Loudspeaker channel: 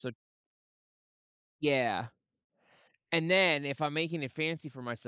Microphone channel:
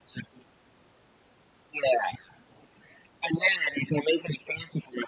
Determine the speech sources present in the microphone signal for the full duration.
echo only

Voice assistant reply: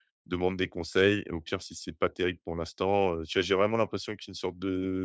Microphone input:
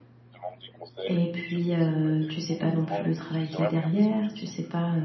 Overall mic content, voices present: both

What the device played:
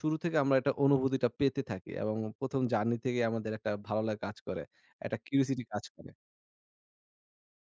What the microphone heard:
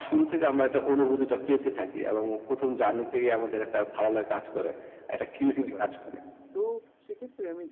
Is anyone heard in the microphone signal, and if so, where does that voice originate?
both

